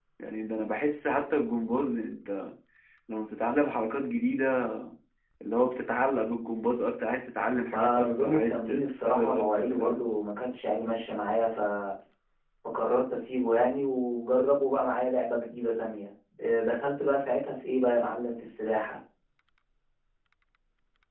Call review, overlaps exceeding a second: present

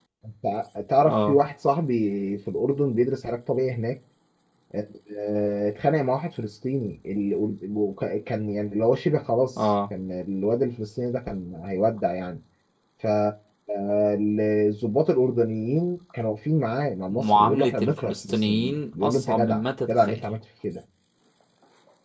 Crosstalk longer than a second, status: present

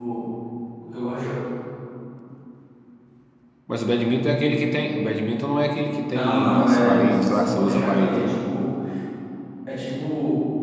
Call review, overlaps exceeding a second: present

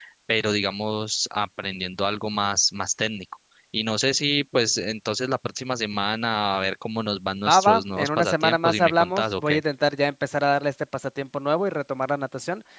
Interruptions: present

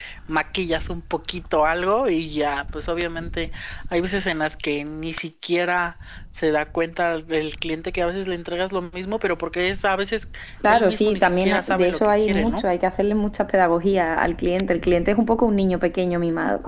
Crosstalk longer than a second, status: present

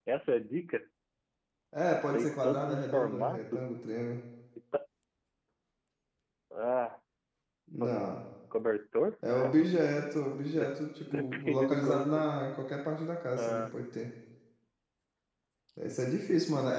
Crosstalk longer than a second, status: present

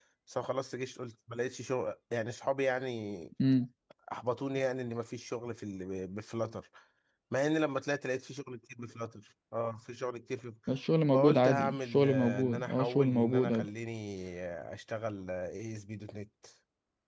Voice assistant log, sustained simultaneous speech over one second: present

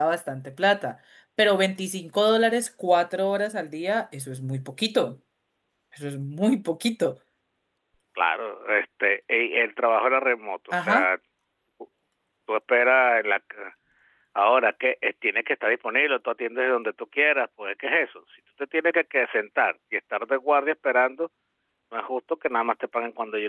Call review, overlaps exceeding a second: none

